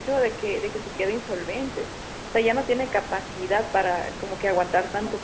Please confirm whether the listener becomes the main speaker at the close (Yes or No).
No